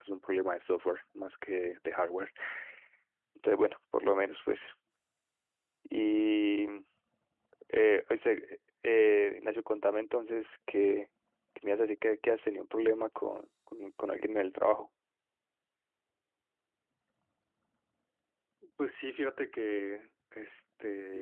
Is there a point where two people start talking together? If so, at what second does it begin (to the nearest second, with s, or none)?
none